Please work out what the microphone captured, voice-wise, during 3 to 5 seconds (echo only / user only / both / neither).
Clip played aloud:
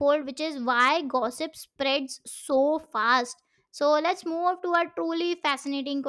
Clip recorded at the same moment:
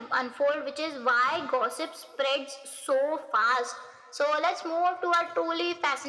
echo only